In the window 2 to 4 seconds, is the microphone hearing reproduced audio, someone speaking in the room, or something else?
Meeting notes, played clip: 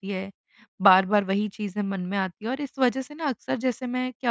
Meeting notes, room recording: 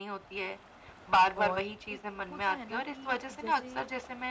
both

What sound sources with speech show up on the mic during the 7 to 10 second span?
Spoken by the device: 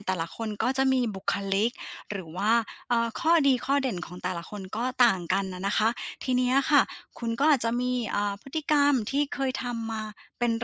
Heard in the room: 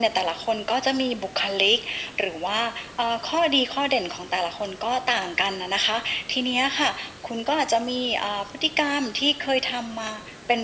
echo only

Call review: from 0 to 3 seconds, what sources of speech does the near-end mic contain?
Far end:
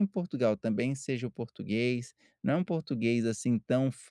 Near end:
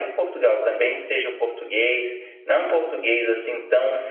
echo only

